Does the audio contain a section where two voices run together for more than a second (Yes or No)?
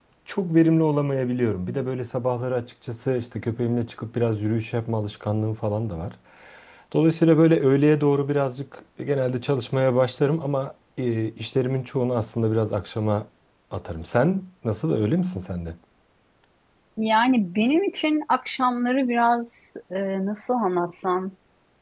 No